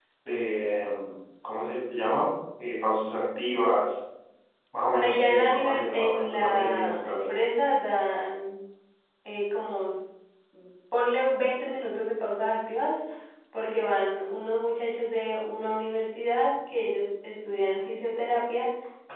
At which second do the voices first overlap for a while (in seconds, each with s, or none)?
5.0 s